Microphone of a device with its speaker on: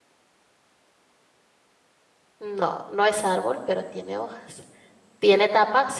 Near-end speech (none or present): present